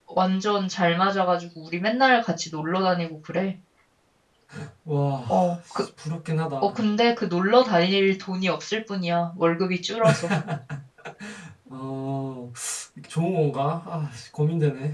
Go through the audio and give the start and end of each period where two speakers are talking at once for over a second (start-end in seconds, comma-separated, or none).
none